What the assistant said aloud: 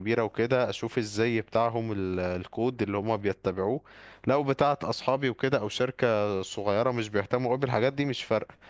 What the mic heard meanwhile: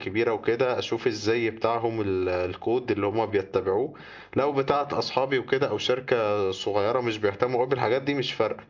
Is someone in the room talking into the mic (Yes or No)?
No